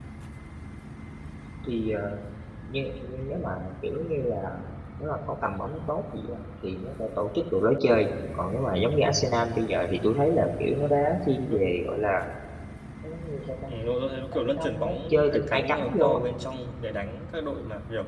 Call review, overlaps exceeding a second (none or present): present